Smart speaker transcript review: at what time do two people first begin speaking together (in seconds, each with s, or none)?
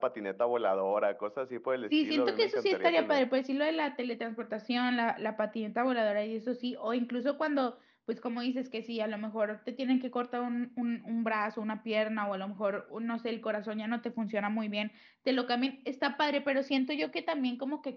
1.9 s